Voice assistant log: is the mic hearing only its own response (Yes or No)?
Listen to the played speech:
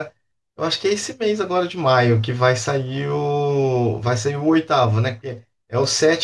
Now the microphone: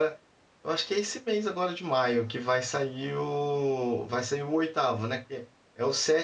Yes